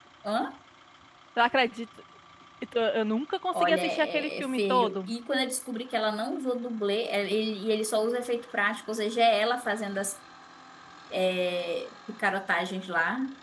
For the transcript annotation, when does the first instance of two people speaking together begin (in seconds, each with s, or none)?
3.5 s